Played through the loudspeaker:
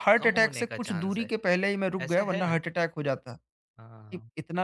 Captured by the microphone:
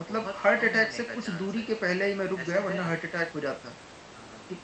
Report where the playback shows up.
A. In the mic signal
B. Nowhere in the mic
A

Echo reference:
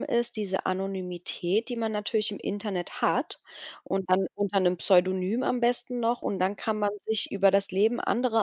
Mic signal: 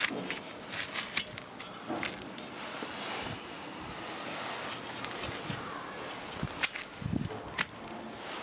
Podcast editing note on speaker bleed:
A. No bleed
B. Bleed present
A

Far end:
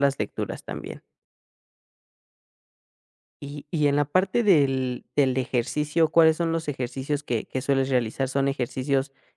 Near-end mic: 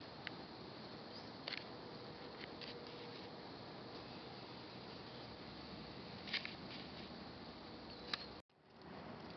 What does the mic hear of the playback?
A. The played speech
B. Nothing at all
B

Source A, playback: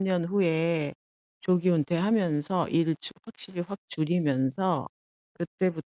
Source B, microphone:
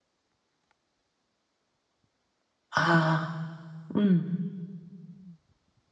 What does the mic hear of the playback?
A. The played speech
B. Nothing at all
B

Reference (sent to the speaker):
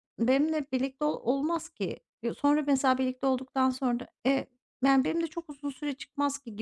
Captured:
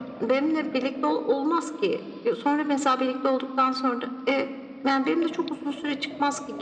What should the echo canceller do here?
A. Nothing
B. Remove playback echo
B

